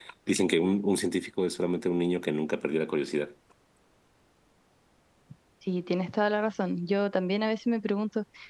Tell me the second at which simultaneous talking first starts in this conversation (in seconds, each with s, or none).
none